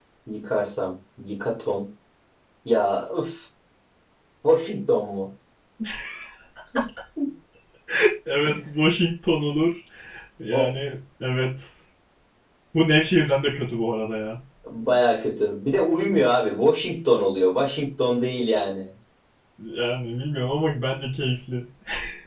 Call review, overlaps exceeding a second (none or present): none